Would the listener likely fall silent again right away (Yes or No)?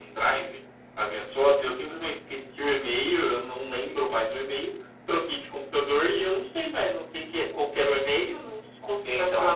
Yes